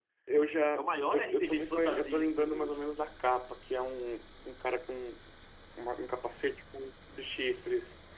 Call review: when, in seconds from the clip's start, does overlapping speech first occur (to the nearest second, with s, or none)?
1 s